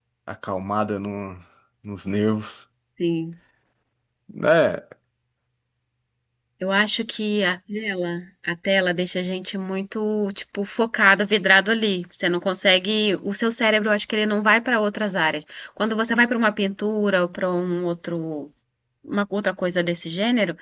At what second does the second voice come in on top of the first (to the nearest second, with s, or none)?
none